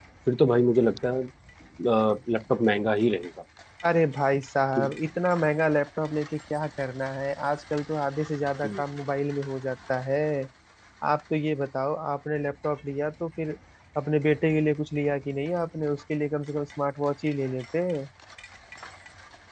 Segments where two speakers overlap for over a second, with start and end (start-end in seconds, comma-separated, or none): none